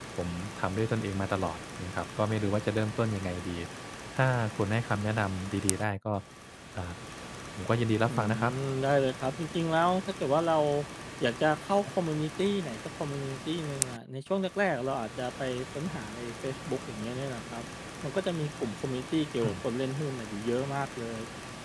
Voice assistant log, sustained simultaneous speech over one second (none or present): none